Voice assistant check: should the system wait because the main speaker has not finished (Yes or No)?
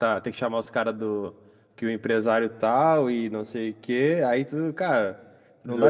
Yes